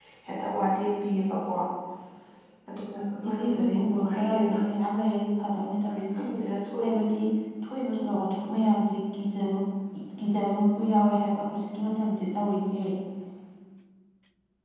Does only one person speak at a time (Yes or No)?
No